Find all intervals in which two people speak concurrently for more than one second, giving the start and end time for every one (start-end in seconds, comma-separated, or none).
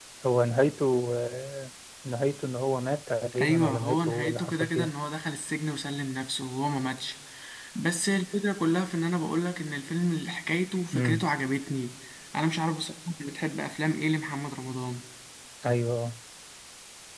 3.4-4.9